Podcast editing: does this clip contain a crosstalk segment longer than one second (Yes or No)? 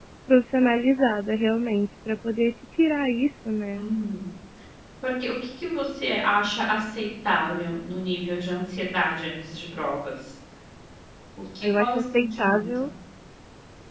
Yes